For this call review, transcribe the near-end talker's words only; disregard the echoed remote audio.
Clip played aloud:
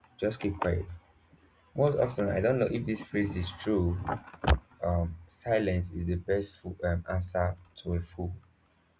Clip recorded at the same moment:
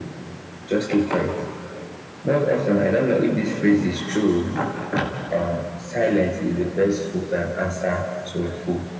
none

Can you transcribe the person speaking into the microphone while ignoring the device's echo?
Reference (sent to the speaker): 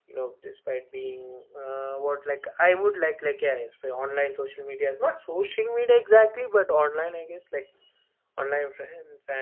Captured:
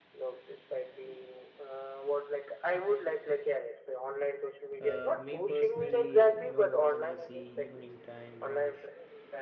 uh, me personally, you know, when I see evening time or

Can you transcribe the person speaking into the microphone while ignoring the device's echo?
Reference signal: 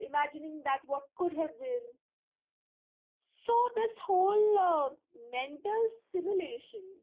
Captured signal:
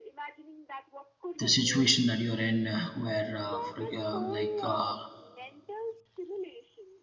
the situation that you're in uh, where uh, for, uh, like uh,

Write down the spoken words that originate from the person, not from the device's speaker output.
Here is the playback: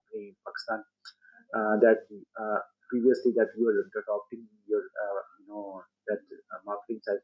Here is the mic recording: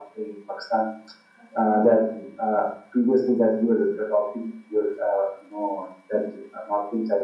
none

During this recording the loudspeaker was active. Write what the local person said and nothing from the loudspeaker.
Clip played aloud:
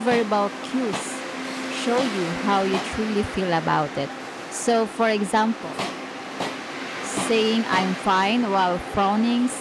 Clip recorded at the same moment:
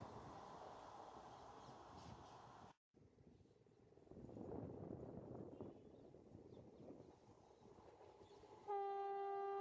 none

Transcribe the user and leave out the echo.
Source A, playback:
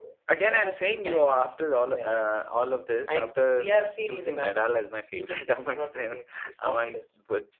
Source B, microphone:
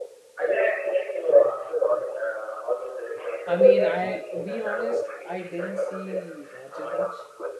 I mean, I had to be honest. I didn't see Roger much.

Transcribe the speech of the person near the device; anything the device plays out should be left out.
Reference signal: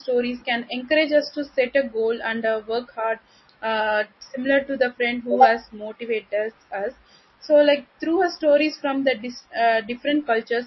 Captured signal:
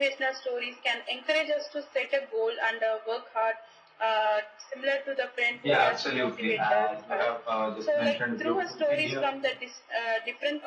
Yeah, absolutely. Uh, you have uh, just mentioned a beautiful thing here.

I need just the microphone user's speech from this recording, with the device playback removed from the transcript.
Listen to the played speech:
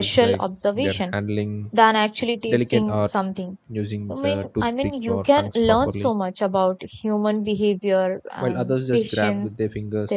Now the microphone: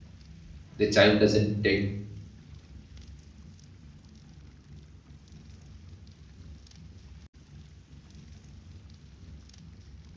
the child doesn't take

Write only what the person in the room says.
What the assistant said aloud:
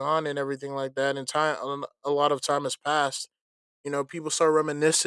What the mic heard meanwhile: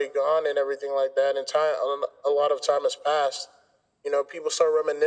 none

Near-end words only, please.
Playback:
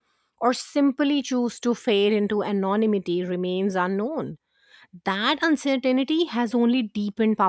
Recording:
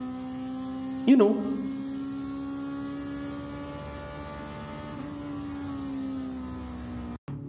you know

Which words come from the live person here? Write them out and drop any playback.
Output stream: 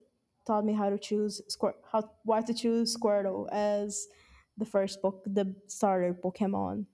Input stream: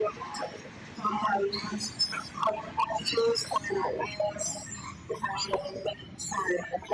none

